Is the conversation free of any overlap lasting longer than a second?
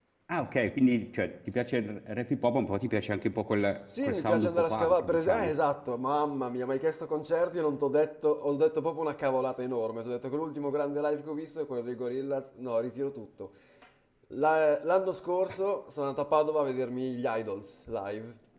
No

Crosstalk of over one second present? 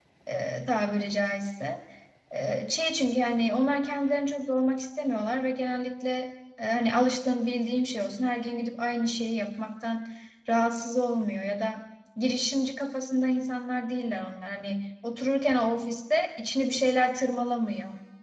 No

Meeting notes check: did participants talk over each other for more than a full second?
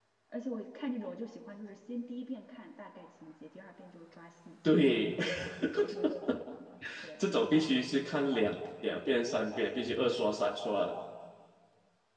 No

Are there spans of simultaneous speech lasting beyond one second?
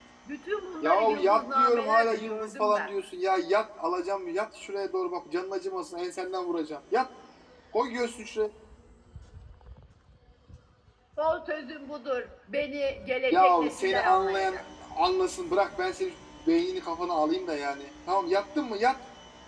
Yes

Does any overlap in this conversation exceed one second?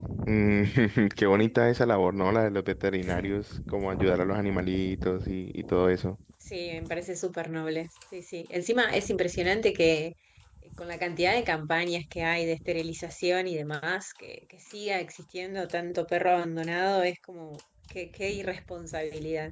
No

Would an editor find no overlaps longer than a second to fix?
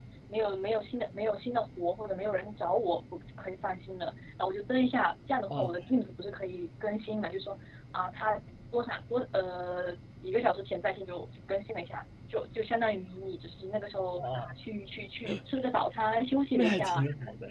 Yes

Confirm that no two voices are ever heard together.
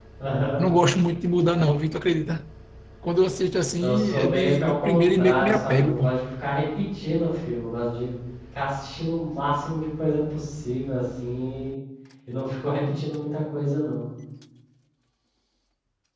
No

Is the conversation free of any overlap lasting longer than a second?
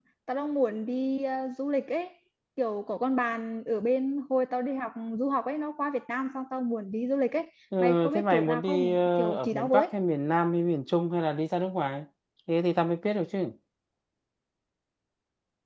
No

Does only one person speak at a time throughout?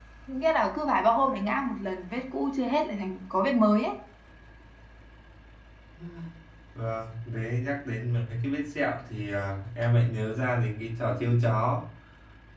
Yes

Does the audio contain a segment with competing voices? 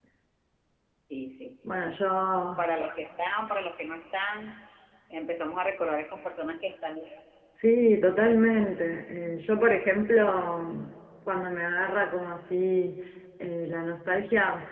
No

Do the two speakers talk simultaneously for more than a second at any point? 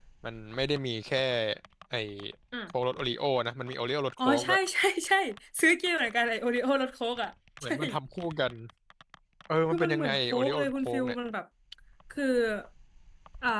Yes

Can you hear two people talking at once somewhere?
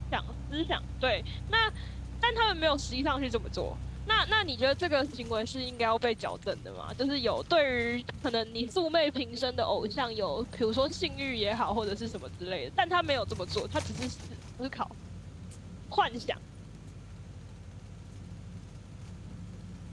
No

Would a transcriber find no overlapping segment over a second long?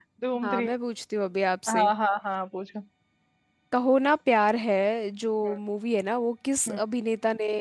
Yes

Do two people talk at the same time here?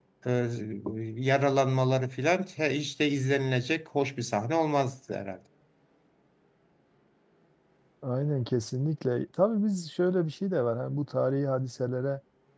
No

